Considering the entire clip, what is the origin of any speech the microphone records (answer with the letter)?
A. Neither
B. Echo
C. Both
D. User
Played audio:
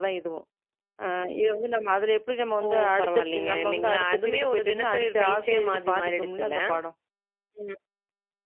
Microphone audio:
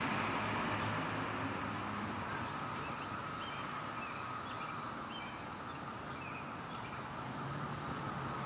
A